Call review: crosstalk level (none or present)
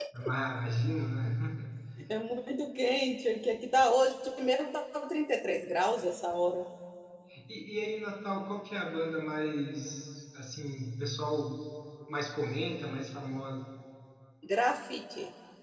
none